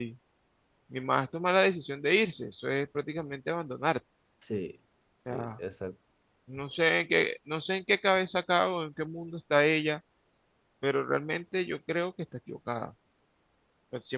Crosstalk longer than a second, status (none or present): none